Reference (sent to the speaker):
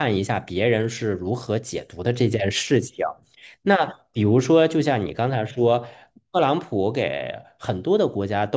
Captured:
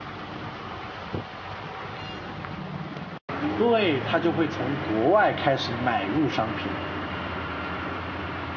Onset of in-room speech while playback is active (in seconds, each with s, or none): 3.6 s